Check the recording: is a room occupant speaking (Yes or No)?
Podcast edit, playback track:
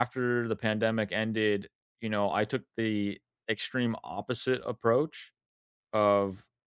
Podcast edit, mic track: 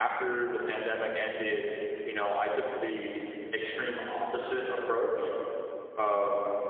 No